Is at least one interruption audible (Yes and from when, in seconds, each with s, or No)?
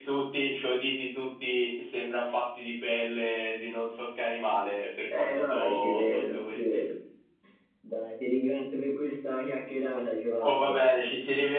Yes, from 5.1 s